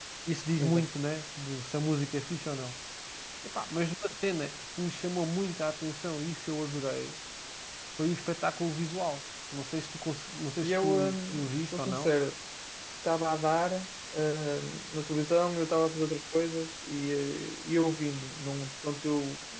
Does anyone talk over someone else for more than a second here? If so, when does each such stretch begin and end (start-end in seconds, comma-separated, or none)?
10.6-12.1